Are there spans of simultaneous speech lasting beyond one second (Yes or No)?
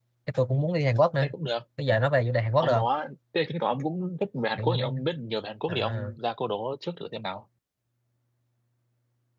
No